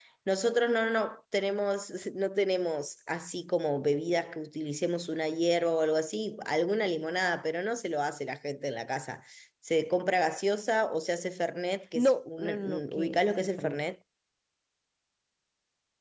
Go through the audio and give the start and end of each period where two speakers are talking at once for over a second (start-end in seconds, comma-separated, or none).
12.0-13.8